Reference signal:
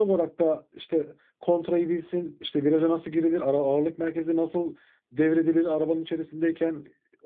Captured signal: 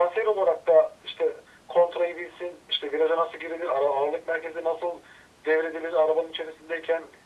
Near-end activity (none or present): none